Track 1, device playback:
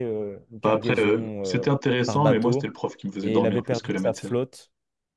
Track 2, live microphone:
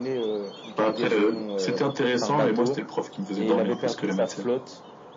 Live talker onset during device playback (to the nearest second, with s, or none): none